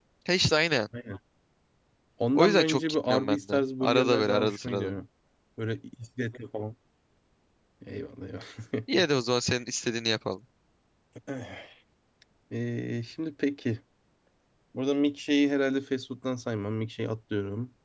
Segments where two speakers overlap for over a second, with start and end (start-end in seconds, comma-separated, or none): 2.4-5.0